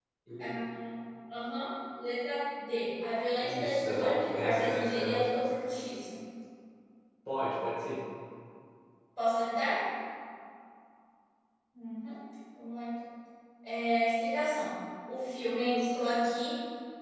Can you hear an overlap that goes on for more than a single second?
Yes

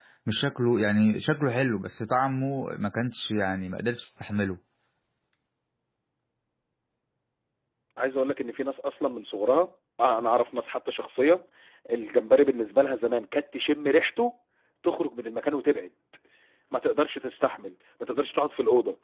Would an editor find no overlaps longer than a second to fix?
Yes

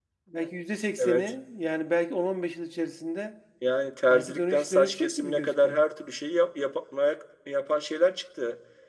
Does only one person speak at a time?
No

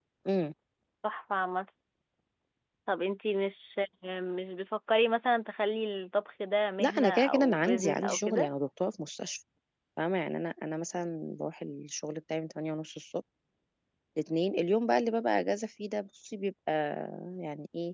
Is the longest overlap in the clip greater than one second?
Yes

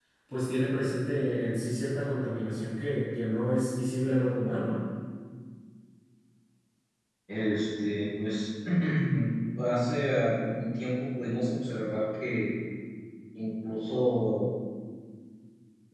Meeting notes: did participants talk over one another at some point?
No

